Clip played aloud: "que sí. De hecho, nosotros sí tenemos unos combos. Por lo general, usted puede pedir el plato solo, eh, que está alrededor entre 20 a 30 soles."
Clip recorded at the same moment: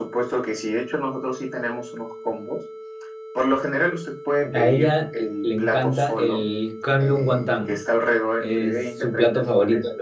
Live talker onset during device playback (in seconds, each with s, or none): 4.5 s